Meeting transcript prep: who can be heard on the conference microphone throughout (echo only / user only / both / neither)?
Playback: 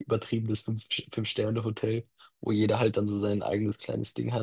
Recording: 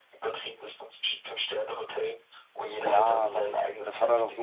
both